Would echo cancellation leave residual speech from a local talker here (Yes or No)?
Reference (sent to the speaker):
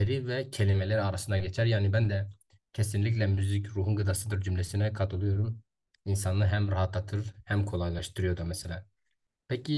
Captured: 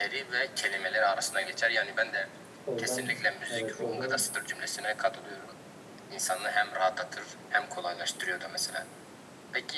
Yes